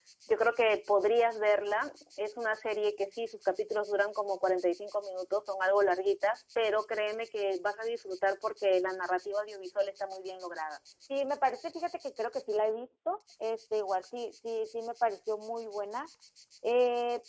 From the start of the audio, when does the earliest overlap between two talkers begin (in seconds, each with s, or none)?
none